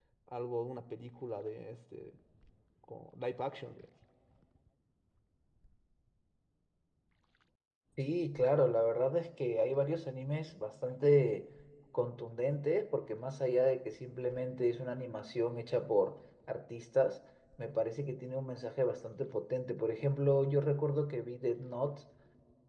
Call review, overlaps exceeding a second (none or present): none